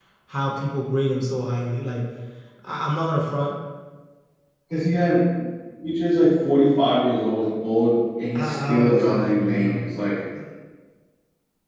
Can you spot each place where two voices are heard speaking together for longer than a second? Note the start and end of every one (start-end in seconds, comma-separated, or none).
8.4-9.8